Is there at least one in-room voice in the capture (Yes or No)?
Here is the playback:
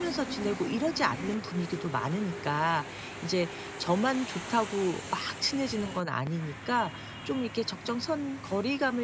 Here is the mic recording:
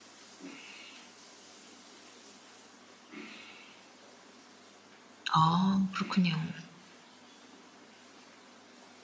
Yes